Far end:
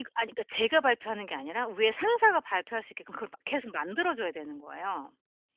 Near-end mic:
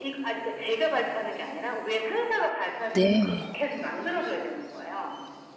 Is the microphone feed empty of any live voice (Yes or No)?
No